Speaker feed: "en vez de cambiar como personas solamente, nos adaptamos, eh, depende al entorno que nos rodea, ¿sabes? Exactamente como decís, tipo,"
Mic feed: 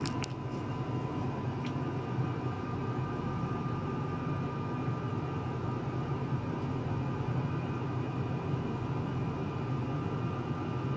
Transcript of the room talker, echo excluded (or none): none